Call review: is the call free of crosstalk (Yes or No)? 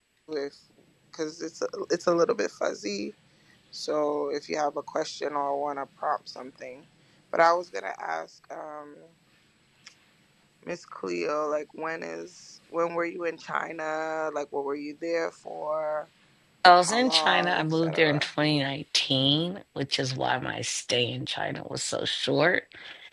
No